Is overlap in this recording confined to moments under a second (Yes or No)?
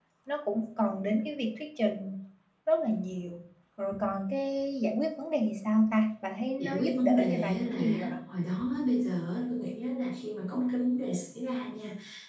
No